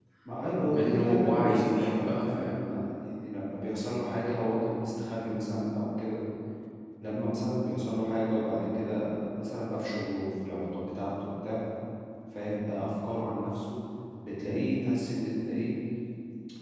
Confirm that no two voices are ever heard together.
No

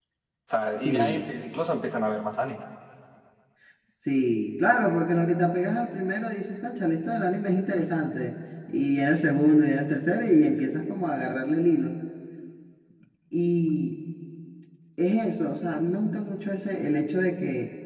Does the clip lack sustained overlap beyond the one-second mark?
Yes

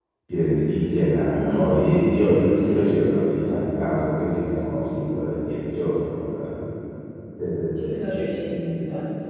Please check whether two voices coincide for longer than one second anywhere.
No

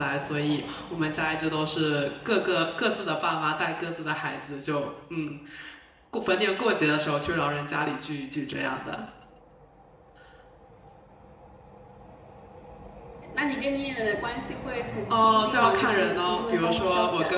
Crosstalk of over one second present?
Yes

